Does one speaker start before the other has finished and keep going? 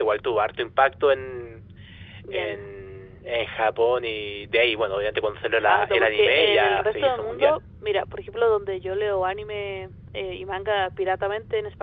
Yes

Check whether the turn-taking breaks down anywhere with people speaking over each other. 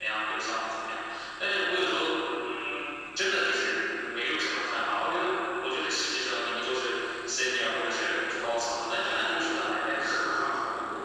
Yes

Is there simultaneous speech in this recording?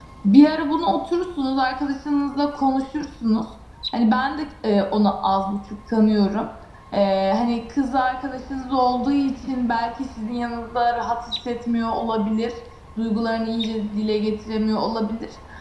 No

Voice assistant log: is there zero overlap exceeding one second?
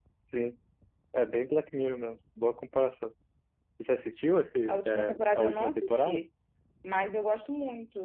No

